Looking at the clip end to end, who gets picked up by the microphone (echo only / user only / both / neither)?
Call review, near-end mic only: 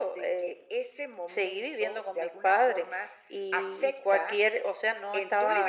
echo only